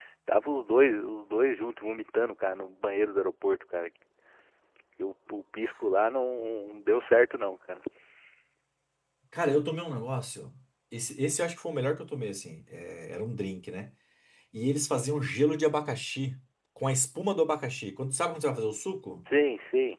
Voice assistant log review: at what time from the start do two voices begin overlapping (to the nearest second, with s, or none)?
none